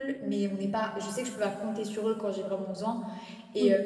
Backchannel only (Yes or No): Yes